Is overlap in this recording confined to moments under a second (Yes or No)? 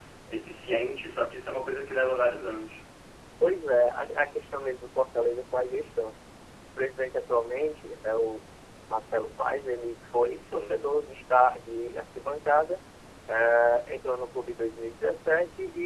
Yes